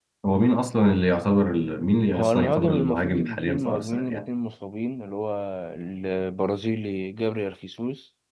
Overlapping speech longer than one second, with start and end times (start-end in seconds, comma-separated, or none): 2.1-4.3